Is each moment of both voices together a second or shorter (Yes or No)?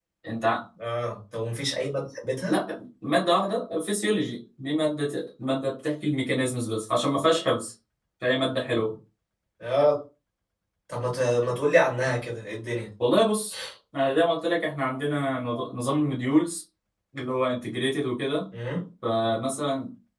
Yes